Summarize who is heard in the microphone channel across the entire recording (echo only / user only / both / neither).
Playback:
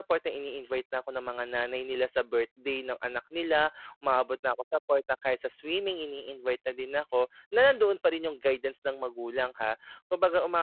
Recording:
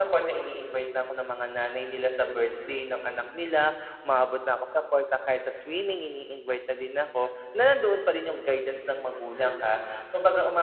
echo only